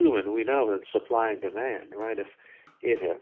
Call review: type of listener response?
listening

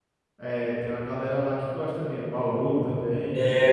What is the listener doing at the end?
taking over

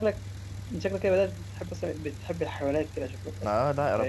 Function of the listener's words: taking over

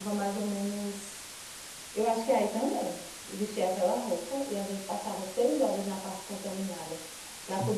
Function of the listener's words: listening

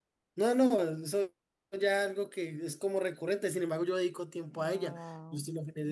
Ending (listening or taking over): taking over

